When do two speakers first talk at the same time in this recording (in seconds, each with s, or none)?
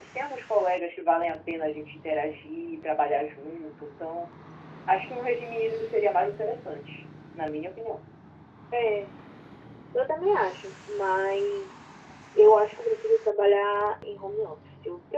none